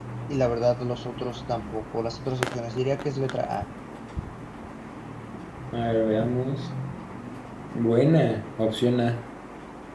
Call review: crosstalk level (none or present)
none